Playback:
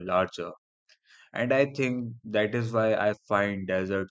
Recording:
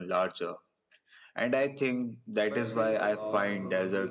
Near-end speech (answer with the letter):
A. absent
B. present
B